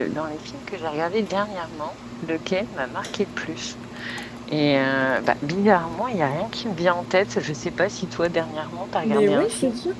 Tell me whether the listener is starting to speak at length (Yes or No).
Yes